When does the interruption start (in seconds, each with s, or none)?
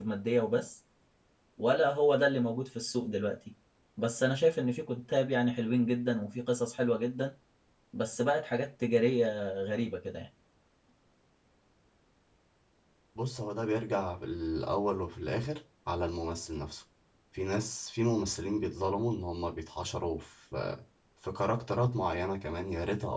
none